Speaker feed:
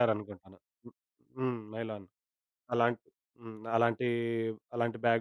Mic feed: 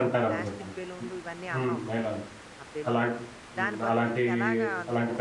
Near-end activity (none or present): present